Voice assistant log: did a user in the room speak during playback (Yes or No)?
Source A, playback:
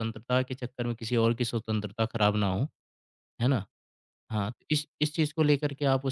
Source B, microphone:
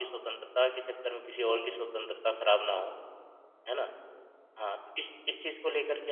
Yes